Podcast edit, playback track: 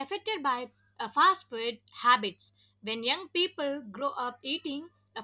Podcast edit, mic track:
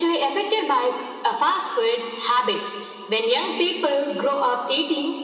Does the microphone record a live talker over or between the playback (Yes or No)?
No